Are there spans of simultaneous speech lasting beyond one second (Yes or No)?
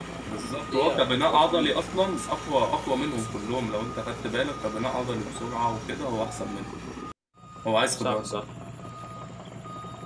Yes